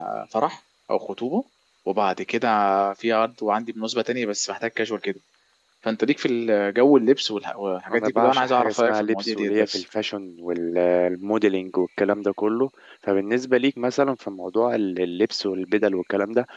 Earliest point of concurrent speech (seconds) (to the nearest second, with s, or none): 8 s